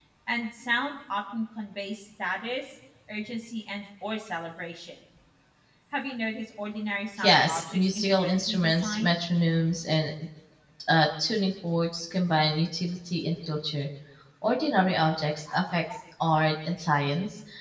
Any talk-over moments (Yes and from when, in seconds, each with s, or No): Yes, from 7.2 s